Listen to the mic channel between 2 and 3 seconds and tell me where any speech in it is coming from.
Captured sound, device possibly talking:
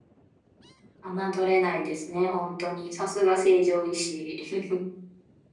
echo only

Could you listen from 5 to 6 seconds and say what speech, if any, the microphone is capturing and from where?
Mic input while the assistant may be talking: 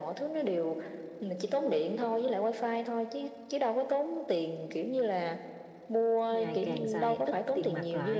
echo only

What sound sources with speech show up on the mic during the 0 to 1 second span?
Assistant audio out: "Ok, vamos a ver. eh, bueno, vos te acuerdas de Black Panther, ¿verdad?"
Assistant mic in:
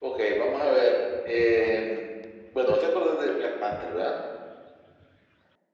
echo only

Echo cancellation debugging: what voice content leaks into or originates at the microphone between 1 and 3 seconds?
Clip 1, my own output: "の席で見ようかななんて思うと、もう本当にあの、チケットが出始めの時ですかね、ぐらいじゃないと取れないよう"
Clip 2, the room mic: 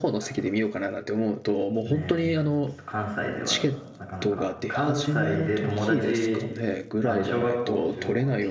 both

